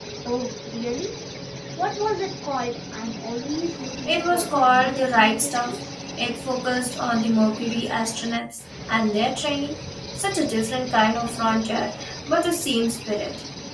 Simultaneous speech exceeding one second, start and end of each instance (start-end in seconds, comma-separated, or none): 4.1-5.8